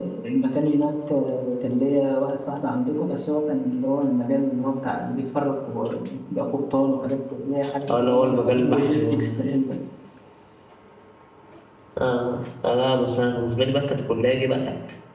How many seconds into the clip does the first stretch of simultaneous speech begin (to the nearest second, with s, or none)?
8 s